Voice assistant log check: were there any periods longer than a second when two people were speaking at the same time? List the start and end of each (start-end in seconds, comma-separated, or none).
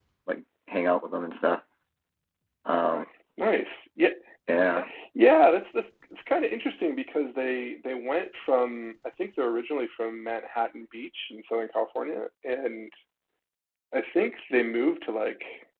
none